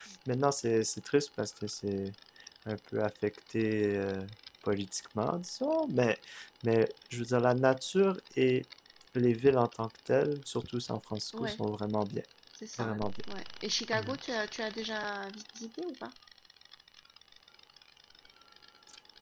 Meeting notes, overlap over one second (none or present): none